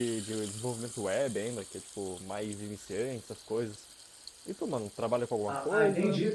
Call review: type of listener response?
taking over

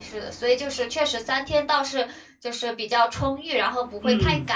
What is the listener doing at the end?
taking over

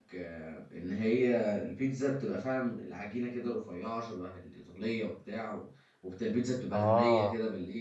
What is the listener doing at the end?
listening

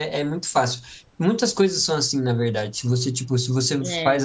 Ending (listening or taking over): listening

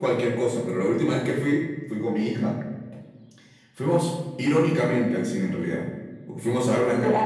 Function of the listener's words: listening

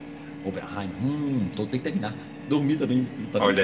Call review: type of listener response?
taking over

